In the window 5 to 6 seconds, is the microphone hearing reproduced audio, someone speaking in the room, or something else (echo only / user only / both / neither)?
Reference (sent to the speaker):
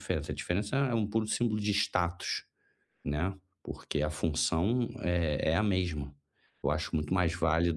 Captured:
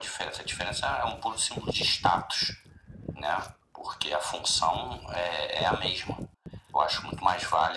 echo only